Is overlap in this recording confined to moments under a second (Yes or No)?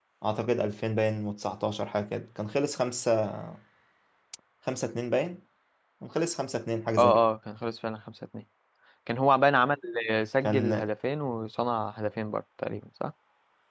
Yes